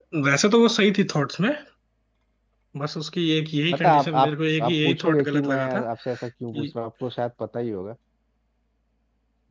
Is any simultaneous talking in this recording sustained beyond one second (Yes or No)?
Yes